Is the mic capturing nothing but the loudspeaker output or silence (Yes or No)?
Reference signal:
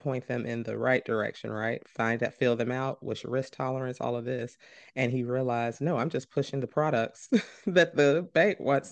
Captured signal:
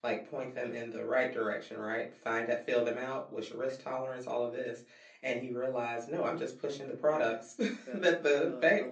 No